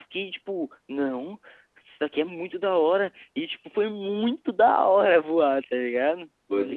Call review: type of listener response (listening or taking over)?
taking over